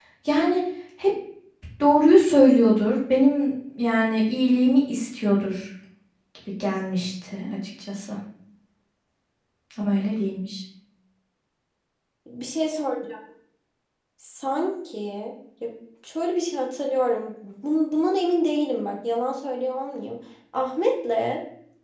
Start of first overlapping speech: none

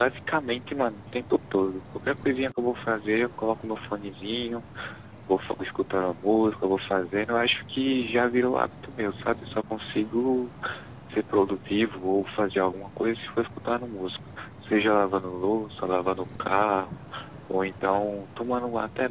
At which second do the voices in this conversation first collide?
none

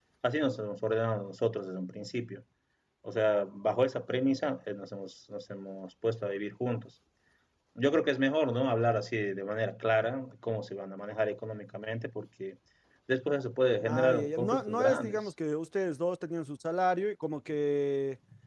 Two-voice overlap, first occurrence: 13.9 s

